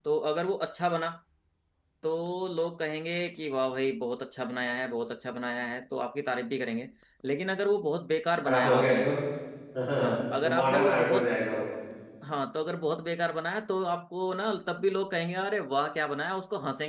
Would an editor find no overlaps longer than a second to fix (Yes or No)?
No